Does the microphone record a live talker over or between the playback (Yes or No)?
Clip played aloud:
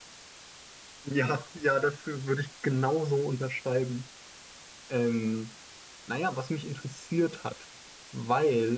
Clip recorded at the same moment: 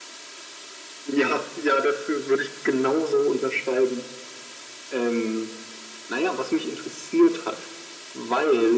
No